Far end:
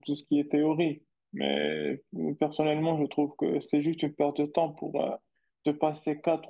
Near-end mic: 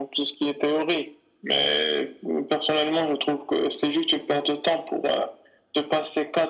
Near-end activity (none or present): none